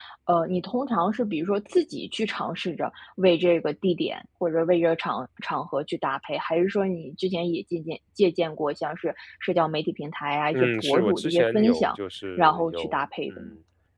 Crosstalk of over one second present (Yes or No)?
Yes